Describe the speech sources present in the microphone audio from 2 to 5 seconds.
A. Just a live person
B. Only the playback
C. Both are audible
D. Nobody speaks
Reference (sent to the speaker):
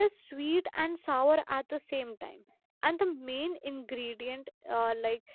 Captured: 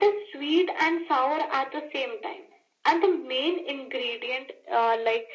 B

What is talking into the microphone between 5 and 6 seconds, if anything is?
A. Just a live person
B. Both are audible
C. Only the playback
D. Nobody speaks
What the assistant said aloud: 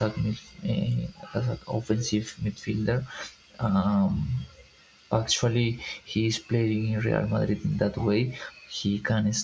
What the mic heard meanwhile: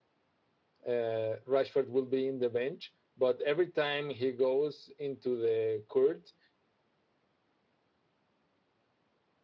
A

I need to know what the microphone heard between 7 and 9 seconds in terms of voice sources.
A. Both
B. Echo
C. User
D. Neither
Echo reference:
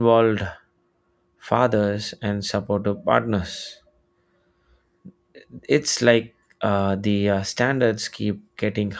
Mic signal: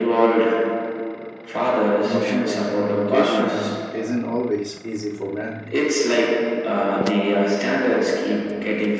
B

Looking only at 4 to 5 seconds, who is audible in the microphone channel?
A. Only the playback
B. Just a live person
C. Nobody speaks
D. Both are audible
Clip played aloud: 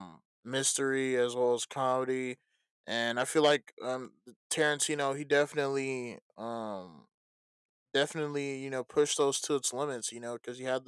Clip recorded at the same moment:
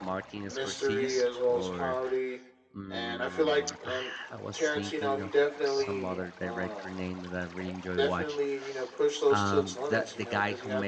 D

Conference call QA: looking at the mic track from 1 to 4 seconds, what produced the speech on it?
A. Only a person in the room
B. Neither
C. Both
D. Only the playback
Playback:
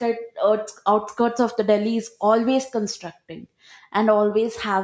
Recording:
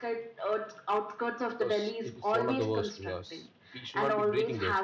C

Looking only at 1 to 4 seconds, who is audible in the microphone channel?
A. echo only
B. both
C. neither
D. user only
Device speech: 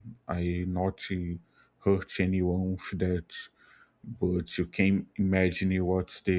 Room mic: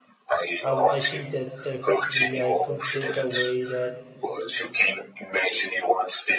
B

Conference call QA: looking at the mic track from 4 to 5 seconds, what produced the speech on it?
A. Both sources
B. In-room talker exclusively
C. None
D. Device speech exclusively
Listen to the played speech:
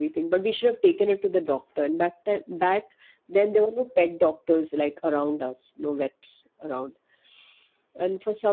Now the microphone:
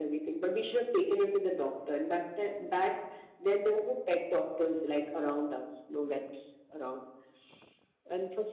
D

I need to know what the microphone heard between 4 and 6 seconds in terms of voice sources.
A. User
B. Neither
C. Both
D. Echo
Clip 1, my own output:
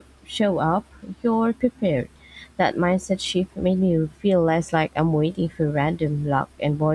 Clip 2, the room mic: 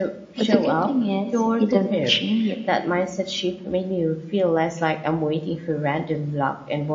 D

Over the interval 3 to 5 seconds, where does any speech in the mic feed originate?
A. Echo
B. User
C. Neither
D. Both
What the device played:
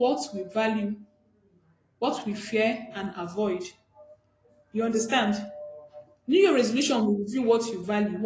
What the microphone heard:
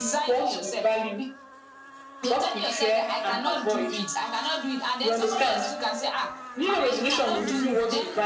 D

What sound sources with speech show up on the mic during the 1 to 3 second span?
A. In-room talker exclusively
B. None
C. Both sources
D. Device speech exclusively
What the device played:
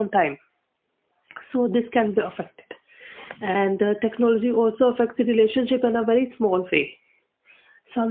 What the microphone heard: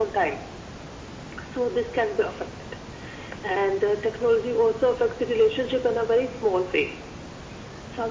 D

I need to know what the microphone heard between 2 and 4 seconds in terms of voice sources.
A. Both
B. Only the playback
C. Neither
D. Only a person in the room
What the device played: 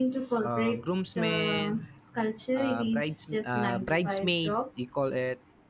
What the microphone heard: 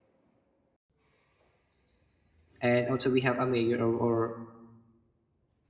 D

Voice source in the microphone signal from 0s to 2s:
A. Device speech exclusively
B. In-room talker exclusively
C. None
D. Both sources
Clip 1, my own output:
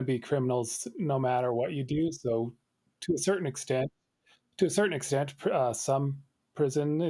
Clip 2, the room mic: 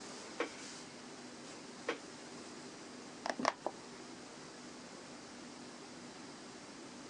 C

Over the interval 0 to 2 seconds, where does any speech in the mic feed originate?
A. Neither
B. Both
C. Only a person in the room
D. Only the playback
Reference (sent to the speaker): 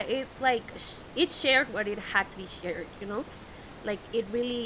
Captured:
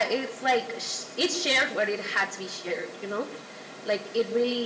D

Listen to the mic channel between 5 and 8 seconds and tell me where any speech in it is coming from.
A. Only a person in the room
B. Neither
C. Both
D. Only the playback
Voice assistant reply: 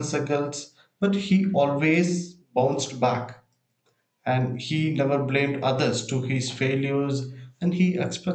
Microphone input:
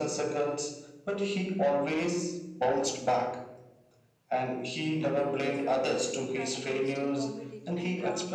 C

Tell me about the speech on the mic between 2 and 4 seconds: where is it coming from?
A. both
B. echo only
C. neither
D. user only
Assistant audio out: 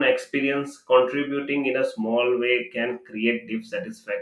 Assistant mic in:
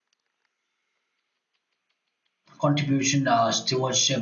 D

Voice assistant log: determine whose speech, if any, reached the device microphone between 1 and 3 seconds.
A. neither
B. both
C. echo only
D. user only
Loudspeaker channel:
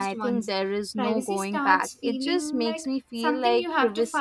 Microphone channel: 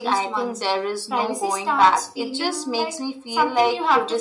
C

